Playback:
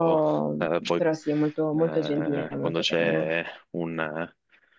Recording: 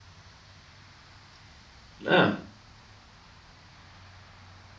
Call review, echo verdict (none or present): none